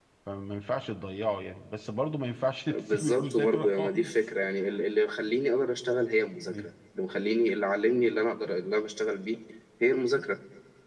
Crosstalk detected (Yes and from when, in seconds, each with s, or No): Yes, from 2.7 s